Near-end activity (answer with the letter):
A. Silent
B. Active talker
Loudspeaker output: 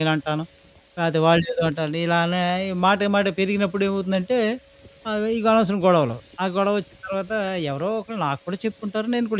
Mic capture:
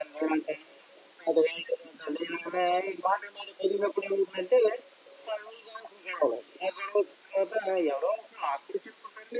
A